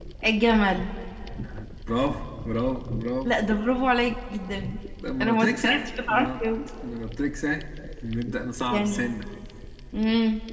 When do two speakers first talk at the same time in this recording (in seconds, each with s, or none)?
5.2 s